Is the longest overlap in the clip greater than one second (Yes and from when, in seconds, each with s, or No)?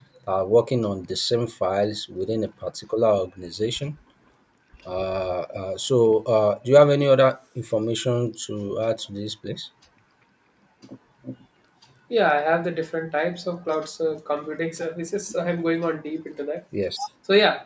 No